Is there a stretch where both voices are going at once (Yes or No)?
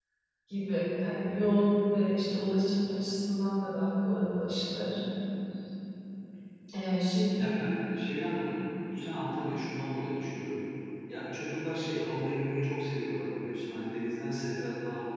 No